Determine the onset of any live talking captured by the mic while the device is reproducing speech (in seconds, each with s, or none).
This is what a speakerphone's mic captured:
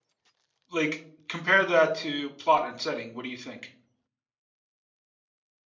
0.7 s